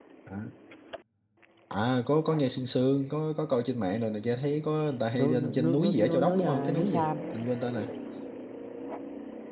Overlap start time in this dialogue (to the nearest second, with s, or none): 5 s